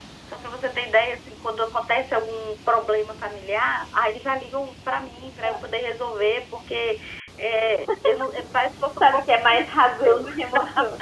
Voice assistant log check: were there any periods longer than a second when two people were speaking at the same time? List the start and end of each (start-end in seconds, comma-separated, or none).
9.0-10.2